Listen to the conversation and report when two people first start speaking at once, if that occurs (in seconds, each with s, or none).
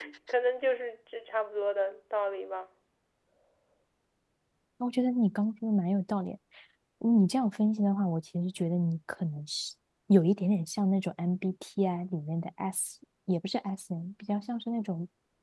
none